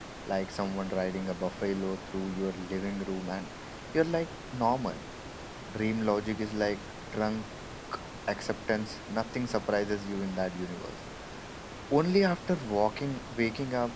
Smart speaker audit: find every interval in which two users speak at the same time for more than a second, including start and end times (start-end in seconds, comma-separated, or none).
none